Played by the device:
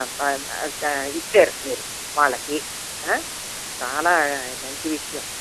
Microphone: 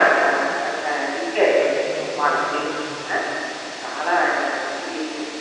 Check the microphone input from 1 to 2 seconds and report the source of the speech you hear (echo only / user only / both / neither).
both